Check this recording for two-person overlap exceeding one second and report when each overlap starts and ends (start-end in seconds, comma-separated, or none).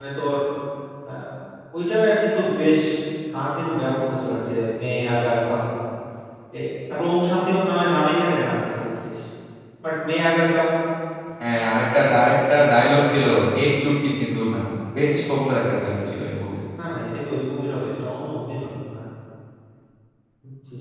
none